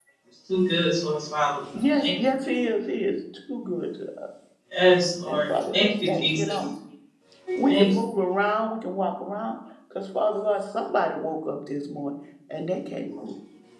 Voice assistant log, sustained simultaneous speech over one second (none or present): present